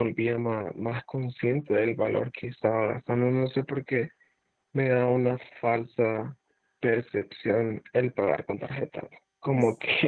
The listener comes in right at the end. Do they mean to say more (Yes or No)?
No